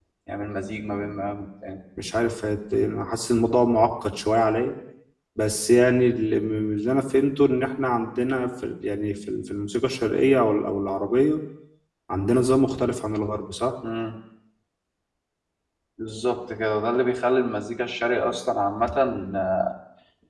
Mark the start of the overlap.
none

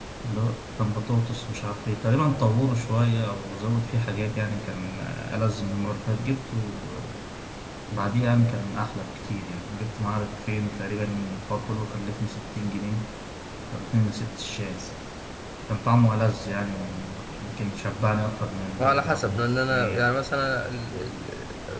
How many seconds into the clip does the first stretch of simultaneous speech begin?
19 s

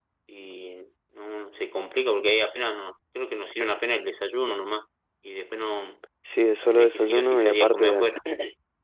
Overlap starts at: 7 s

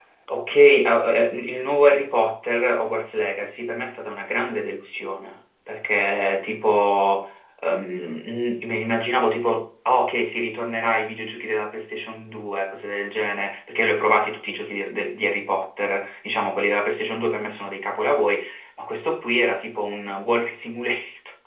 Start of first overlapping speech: none

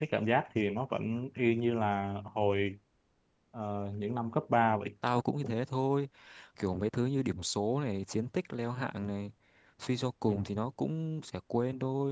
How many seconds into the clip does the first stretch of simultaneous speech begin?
none

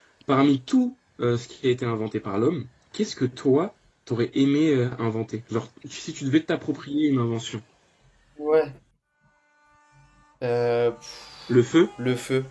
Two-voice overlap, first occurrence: none

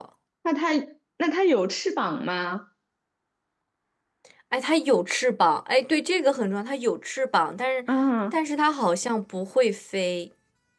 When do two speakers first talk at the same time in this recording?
none

